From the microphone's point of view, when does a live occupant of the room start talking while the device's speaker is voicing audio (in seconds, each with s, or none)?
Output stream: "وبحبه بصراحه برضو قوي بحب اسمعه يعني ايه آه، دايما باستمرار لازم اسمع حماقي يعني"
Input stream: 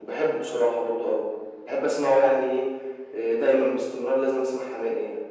none